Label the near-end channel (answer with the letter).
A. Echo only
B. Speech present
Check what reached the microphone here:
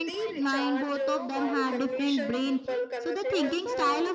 B